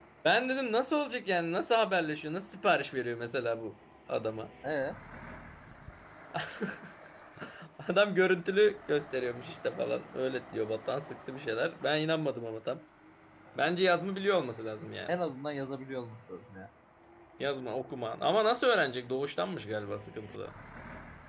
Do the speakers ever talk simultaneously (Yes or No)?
No